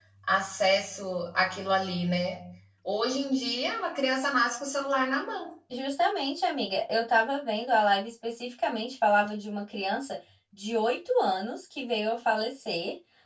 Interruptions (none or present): none